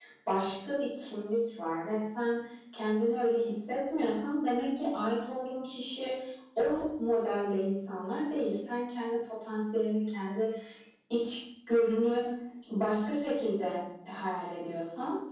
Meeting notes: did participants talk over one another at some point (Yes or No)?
No